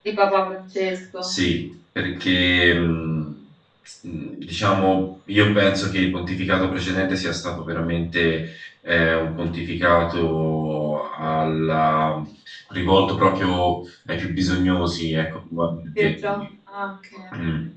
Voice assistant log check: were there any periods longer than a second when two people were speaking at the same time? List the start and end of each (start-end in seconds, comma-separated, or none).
none